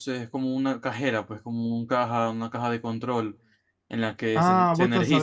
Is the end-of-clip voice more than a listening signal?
Yes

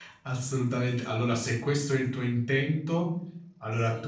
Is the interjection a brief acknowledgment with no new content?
Yes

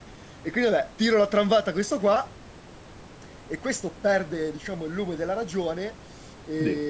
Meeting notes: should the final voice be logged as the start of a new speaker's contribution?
No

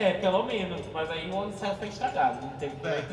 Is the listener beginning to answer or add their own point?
Yes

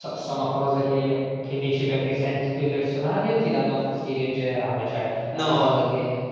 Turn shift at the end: No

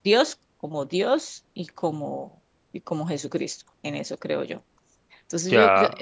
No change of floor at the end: Yes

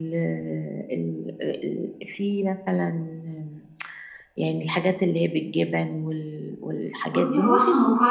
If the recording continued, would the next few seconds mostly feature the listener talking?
Yes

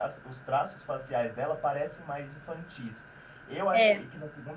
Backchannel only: Yes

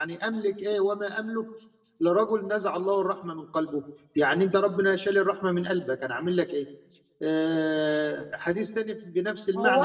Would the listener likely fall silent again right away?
No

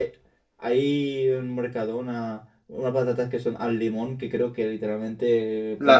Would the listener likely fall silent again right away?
No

